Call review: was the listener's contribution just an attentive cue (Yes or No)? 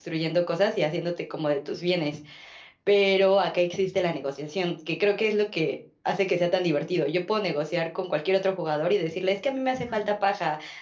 Yes